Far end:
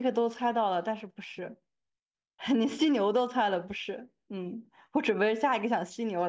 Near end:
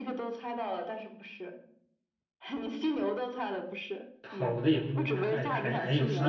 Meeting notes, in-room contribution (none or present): present